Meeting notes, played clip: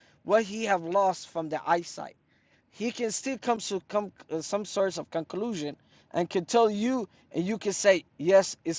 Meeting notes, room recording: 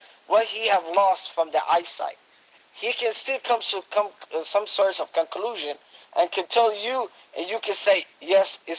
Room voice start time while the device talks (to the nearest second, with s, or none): none